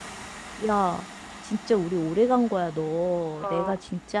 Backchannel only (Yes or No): Yes